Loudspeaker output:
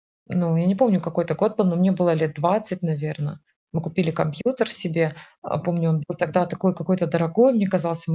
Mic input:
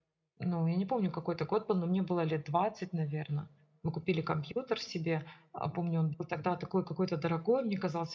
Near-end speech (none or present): none